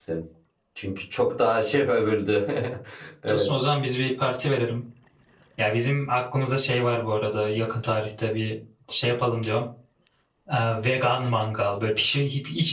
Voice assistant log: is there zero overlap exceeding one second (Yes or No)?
Yes